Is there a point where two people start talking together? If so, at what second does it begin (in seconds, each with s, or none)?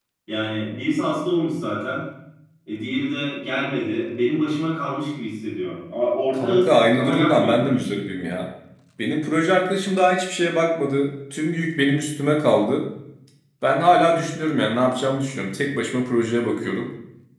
6.3 s